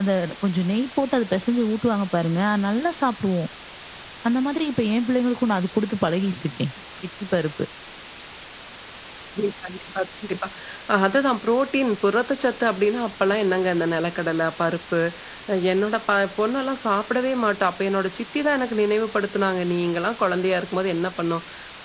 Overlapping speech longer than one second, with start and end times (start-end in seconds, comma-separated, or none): none